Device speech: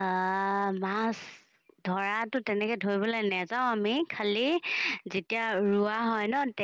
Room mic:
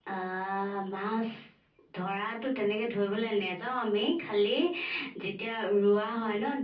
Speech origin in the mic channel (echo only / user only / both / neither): echo only